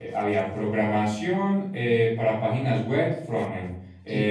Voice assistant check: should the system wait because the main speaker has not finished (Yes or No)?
Yes